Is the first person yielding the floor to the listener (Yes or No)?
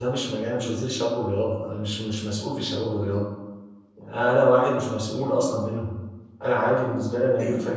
No